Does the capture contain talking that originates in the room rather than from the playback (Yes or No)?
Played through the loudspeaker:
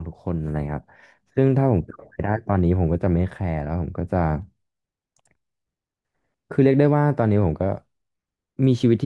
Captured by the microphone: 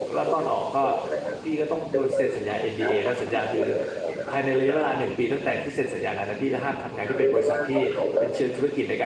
Yes